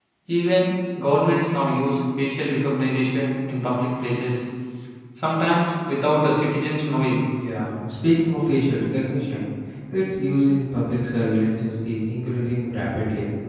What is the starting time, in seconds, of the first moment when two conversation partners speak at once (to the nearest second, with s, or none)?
none